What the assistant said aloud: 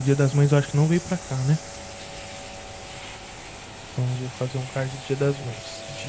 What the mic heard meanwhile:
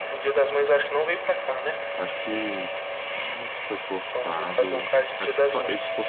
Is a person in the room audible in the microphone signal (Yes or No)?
Yes